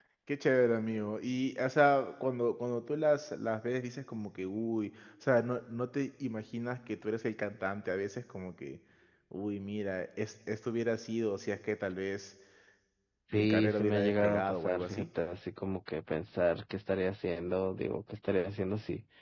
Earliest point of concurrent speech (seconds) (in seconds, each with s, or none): 13.3 s